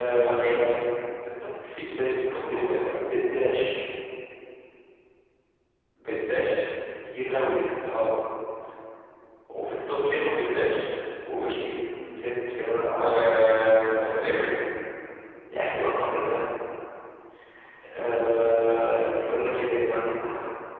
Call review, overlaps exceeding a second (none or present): present